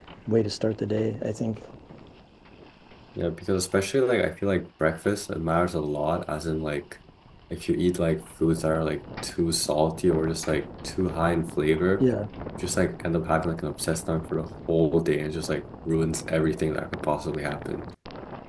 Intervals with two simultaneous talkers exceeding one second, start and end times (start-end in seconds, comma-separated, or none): none